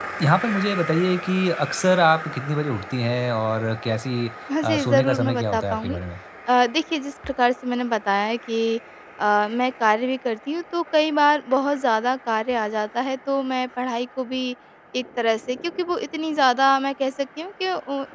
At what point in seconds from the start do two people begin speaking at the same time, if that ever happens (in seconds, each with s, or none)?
4.6 s